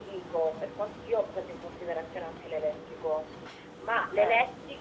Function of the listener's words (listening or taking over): listening